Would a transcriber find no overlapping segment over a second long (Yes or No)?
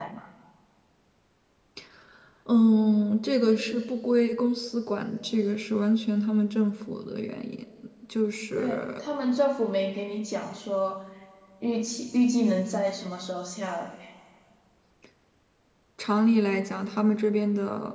Yes